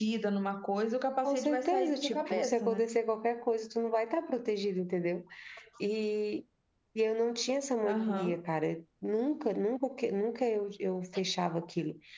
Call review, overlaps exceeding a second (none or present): present